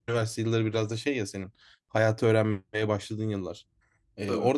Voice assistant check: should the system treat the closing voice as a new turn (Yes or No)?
No